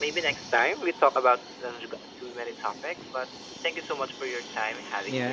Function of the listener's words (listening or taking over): taking over